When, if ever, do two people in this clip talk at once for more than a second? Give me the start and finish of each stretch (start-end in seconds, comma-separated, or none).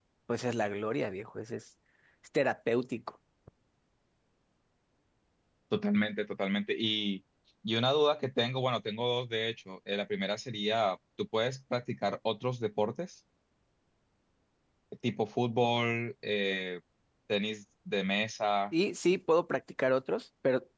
none